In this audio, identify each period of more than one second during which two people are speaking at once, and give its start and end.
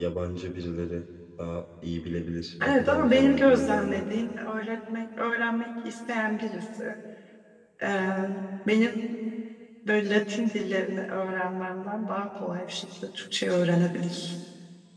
2.6-4.0

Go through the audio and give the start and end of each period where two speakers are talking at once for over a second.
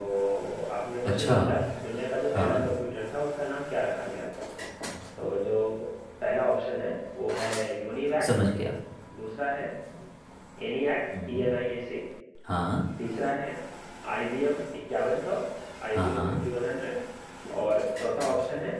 none

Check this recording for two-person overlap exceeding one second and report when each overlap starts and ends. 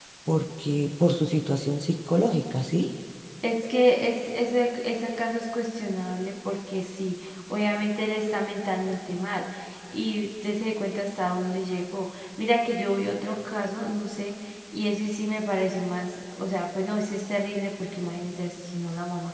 none

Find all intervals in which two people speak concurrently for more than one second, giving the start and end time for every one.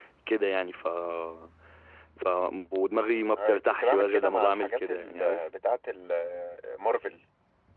3.4-5.4

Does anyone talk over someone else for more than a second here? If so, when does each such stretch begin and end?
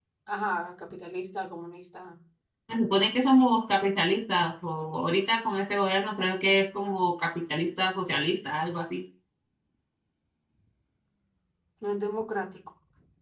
none

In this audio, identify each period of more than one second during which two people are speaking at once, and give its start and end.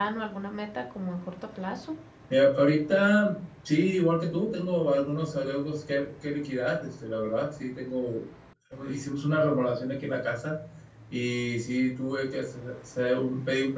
none

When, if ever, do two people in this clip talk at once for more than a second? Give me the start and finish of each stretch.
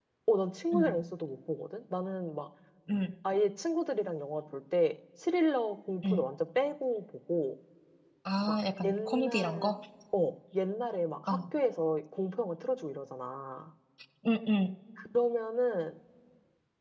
8.4-9.7

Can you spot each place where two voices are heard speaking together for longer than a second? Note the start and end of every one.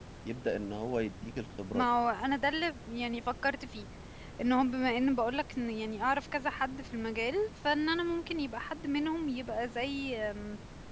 none

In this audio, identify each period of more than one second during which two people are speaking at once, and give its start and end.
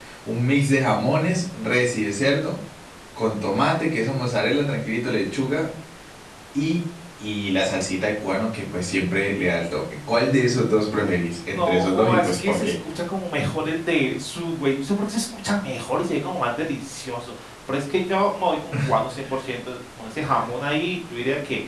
11.5-12.7

